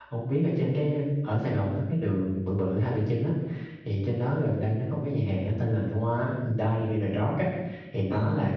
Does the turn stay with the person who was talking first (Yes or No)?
Yes